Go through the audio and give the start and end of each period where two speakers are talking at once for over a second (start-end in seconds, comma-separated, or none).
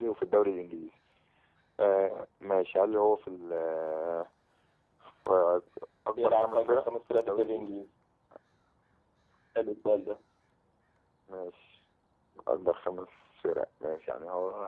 6.2-7.8